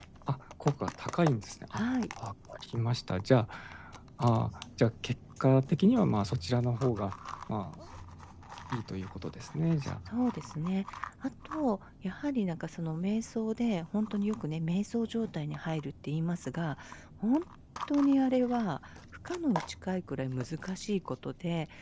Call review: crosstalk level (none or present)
none